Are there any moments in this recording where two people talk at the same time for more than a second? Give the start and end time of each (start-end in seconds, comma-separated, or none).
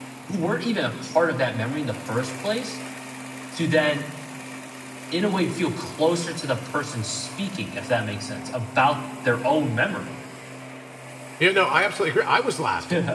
none